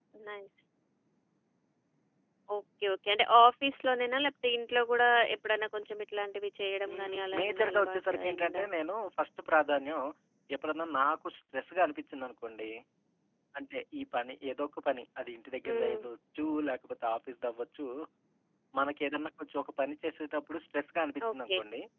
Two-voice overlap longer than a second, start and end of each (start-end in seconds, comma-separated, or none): 6.9-8.7